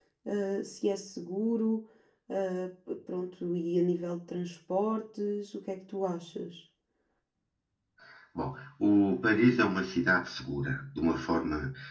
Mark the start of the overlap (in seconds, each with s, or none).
none